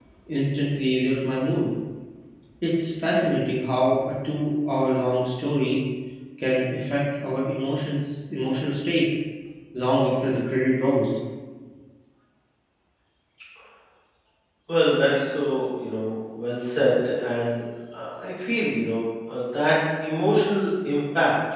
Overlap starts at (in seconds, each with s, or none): none